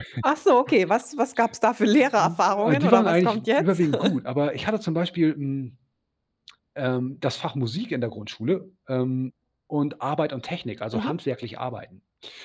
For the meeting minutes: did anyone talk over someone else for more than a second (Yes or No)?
Yes